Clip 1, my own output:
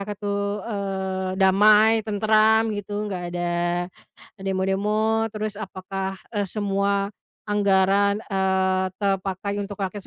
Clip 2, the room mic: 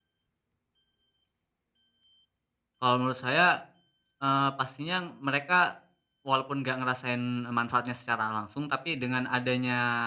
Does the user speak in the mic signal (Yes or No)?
Yes